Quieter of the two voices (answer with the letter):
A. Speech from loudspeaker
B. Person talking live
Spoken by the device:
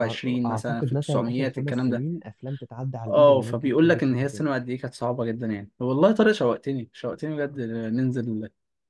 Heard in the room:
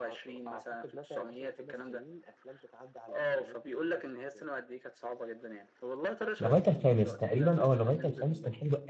A